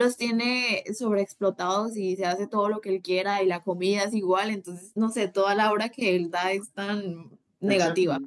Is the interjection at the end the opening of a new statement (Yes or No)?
Yes